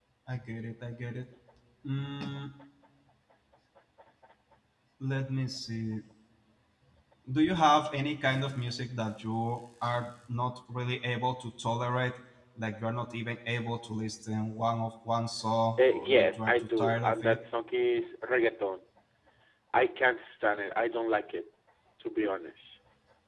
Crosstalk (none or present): present